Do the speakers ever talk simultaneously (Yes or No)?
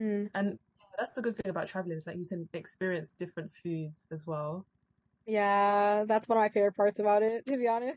No